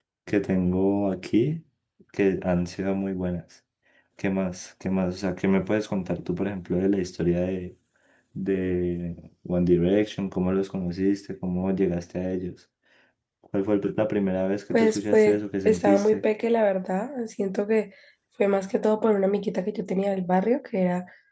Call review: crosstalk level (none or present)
present